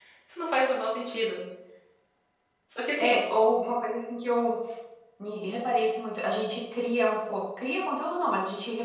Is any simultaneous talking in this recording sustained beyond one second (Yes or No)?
No